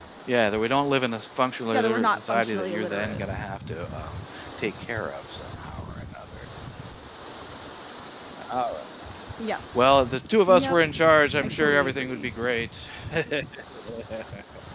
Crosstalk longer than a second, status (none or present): present